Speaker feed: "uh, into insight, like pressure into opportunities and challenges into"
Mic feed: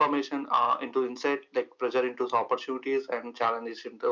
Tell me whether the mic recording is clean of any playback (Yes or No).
No